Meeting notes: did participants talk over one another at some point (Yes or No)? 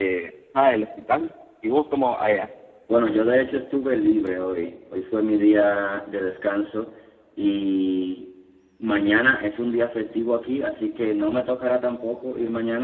No